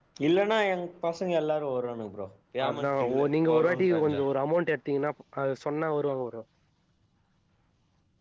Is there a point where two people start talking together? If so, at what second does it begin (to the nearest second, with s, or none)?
3 s